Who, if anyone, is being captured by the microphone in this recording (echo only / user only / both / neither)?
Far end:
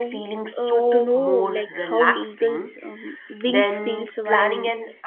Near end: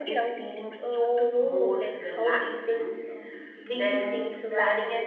echo only